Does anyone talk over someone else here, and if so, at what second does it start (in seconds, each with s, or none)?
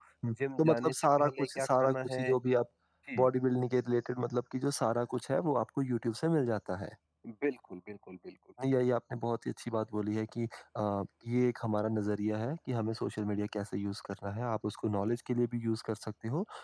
0.6 s